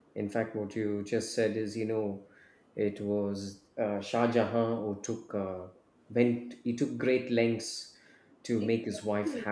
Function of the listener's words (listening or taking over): taking over